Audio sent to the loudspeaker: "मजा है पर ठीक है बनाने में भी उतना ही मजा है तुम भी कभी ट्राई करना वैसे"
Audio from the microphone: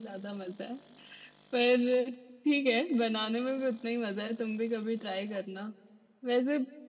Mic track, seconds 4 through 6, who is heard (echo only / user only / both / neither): echo only